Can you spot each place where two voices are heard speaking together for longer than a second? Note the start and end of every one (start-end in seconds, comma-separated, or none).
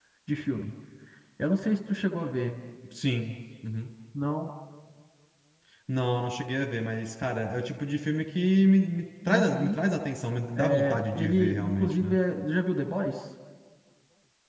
10.6-12.2